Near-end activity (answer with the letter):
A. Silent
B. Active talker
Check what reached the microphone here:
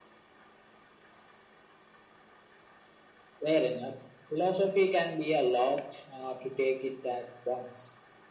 A